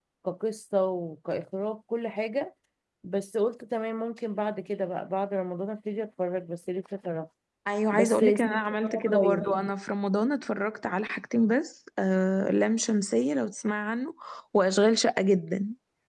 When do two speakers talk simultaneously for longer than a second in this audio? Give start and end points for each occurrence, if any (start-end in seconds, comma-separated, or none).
7.9-9.4